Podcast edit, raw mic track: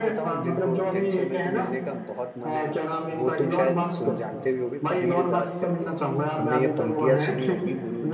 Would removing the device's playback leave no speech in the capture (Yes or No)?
No